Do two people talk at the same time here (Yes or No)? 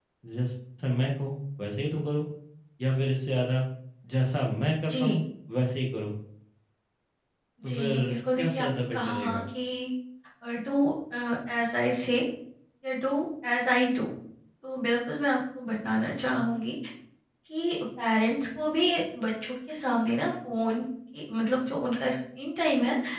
Yes